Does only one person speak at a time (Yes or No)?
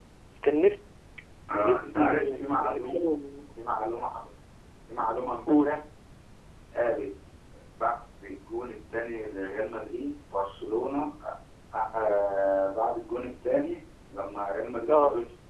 No